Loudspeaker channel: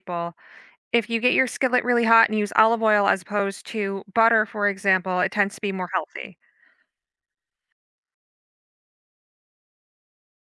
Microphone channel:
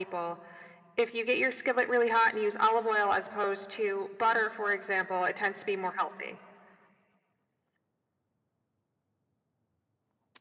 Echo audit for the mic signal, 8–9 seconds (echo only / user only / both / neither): neither